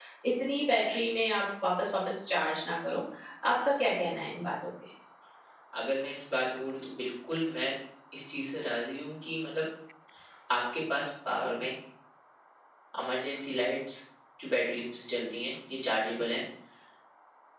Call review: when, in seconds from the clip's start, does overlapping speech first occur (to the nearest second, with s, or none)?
none